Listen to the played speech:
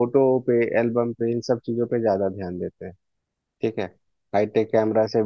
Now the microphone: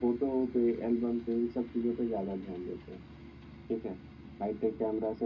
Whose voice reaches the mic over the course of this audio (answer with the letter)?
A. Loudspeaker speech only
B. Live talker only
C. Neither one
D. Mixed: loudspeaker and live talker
A